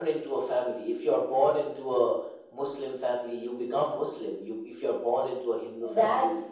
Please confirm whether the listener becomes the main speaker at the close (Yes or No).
Yes